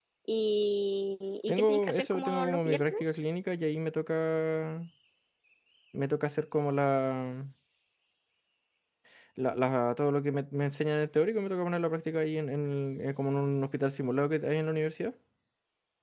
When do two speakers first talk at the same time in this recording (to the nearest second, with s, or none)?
1 s